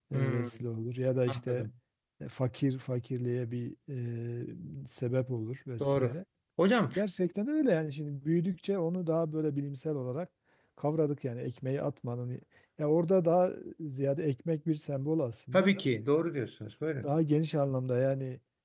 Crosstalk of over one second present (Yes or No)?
No